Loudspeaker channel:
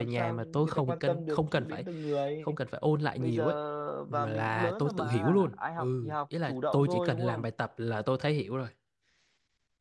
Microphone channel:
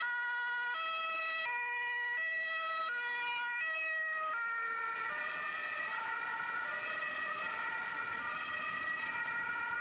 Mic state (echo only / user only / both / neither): neither